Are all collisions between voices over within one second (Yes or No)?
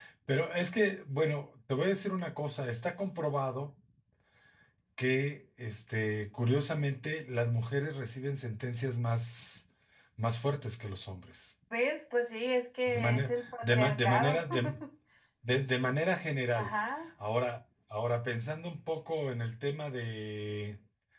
No